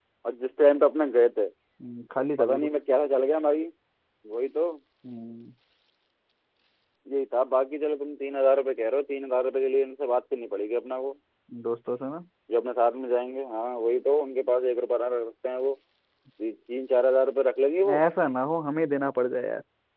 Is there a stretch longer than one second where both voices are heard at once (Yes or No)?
No